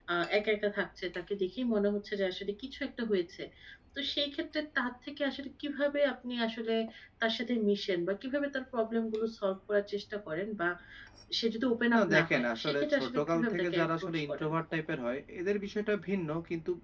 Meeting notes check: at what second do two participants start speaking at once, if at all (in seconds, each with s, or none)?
11.9 s